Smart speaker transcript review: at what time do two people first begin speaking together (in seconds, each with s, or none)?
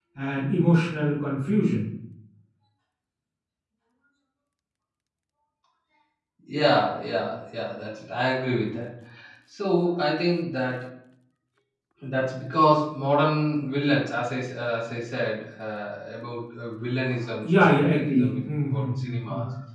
17.4 s